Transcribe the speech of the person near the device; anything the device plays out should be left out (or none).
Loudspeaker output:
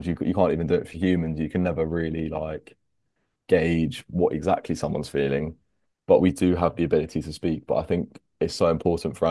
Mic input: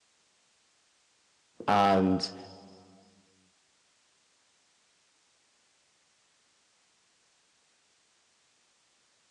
and